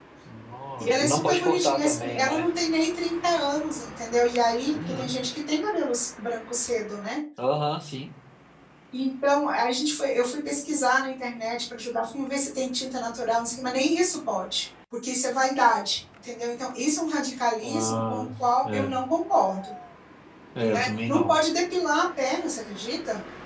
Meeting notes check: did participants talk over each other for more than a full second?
Yes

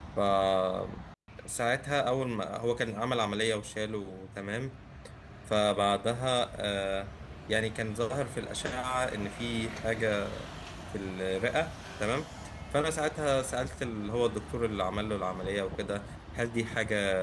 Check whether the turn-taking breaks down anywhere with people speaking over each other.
No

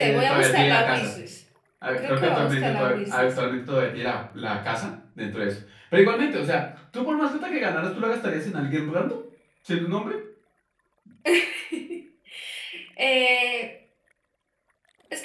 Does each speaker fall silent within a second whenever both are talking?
No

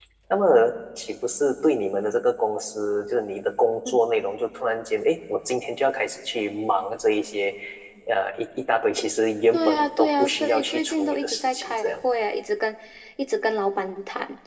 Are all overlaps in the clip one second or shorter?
No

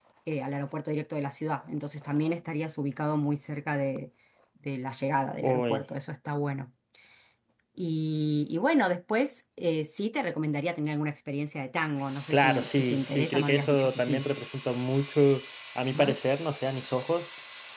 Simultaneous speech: Yes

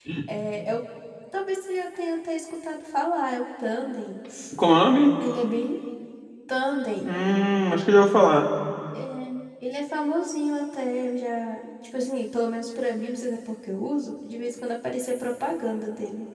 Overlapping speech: No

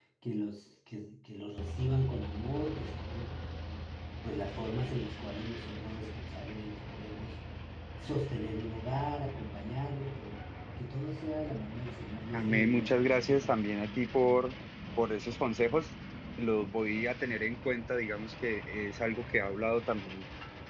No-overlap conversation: No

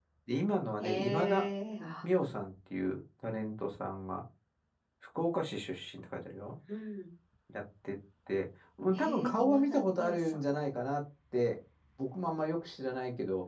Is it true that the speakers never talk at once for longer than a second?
No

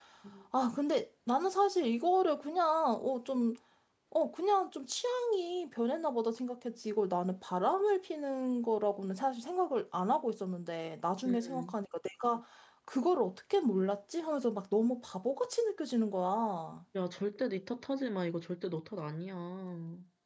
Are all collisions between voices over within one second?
Yes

